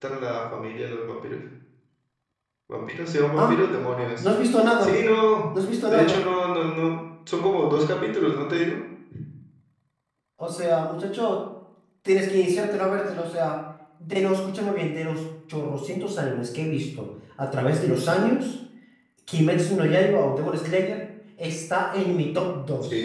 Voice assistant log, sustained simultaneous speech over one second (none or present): none